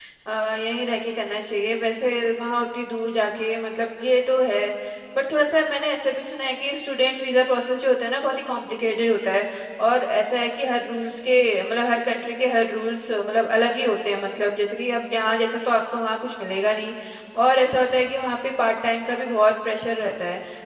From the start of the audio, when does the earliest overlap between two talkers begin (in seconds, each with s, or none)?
none